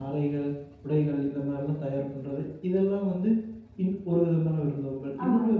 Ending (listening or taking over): listening